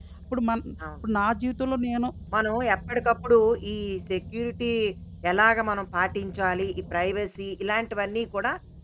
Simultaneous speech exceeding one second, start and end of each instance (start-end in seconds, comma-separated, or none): none